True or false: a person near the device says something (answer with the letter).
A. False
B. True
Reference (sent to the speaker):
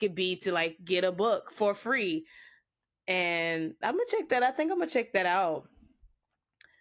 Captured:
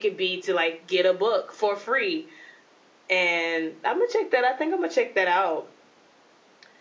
A